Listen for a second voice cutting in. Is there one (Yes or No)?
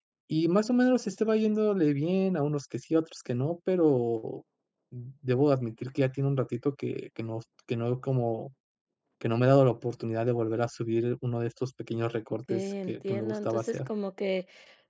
Yes